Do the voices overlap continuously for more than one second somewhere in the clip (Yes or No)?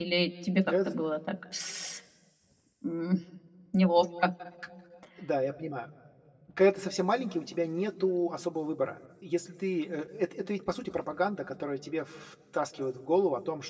No